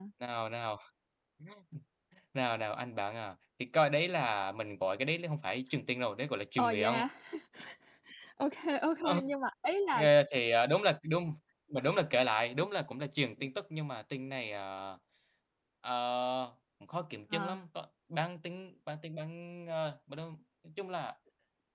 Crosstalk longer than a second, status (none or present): none